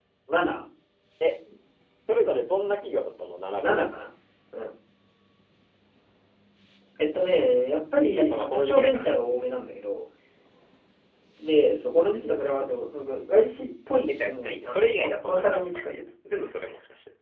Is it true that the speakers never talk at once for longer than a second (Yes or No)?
No